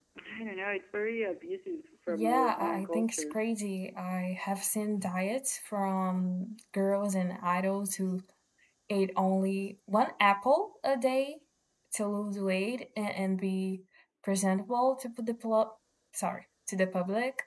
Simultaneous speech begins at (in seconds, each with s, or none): 2.1 s